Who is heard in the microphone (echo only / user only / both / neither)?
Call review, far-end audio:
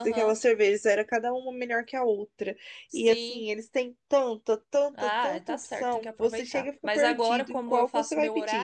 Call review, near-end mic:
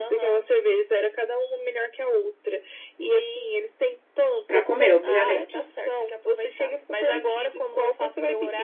both